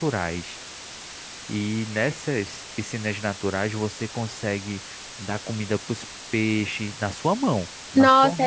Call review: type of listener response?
taking over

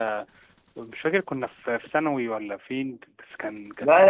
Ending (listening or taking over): taking over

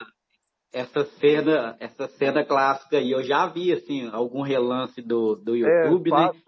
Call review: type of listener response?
taking over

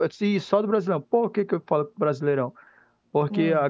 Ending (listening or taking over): listening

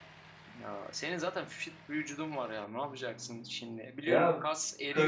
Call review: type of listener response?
taking over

